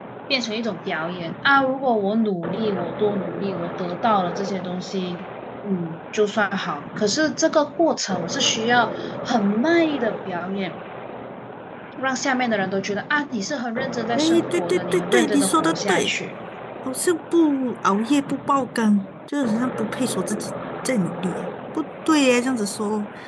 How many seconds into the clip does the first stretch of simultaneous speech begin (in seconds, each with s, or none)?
14.2 s